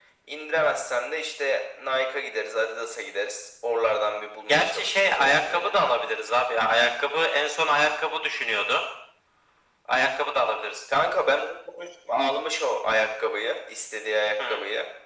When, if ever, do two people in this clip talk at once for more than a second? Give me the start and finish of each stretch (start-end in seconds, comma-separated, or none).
4.4-5.9